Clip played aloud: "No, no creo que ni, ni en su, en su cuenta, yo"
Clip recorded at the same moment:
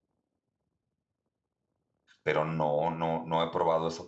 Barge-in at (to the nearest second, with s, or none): 2 s